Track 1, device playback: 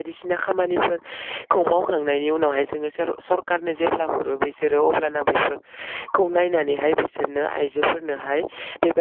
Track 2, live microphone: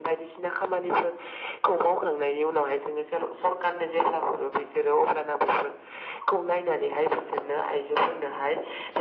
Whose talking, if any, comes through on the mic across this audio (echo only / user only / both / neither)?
echo only